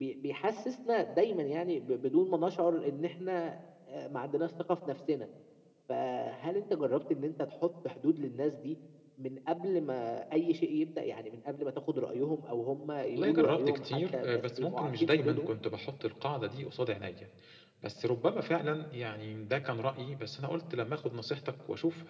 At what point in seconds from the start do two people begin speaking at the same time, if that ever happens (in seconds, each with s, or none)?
13.1 s